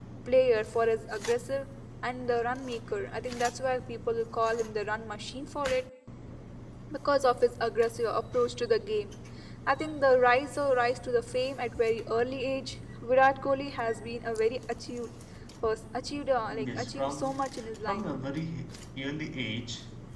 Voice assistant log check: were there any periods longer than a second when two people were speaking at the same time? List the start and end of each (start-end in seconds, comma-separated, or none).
16.5-18.0